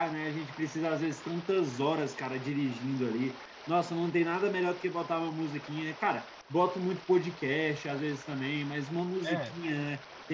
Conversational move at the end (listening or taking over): listening